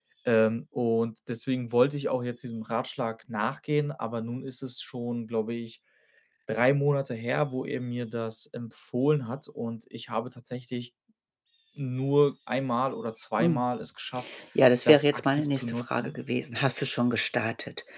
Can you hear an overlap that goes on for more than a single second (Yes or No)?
Yes